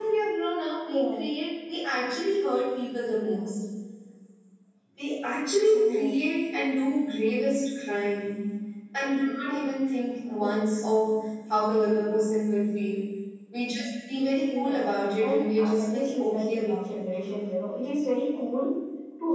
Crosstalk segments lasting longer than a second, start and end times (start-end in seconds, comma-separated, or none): 15.3-17.1